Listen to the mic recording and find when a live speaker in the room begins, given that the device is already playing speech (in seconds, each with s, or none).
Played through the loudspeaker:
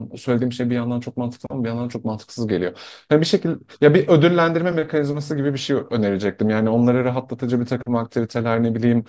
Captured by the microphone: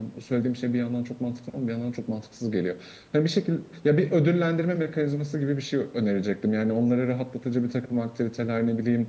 none